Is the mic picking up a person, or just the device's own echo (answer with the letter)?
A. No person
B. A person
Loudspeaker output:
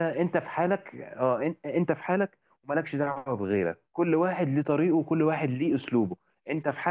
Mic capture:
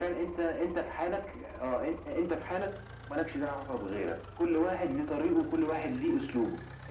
A